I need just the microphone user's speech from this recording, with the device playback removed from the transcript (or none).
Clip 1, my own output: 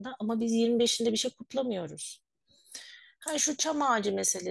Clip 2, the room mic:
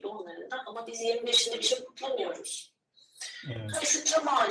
Evet,